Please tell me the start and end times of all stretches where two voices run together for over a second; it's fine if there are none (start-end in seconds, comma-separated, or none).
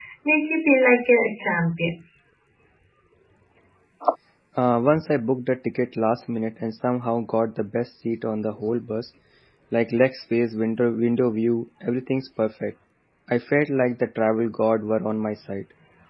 none